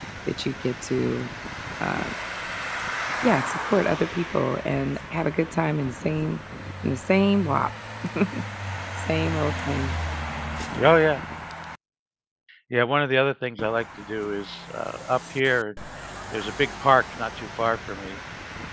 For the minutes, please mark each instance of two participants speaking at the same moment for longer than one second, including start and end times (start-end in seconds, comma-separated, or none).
none